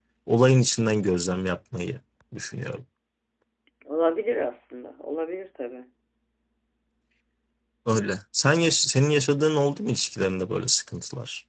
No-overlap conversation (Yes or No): Yes